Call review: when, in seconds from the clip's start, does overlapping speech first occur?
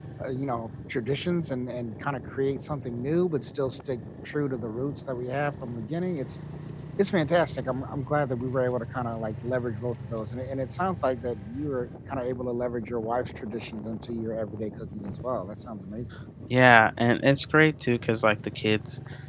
none

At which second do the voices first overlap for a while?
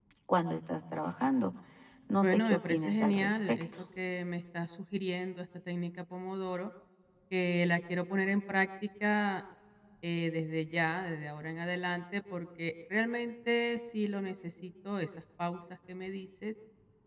2.2 s

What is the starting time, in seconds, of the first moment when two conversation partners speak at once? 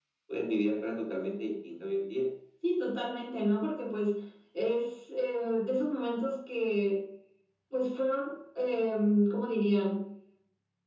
none

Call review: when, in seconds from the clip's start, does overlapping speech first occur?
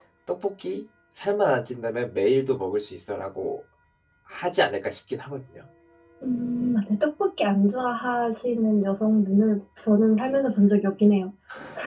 none

